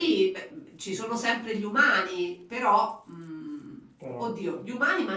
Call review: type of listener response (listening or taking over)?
listening